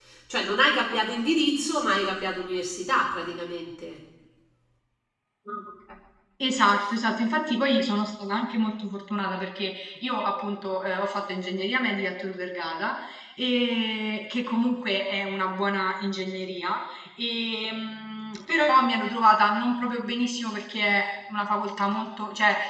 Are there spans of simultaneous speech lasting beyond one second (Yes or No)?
No